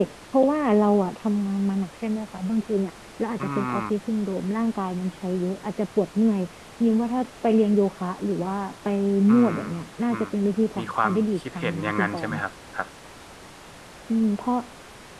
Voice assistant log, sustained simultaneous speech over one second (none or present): present